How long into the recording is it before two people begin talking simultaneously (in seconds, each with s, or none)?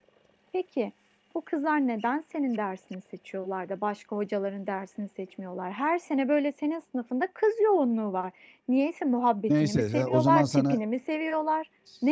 9.5 s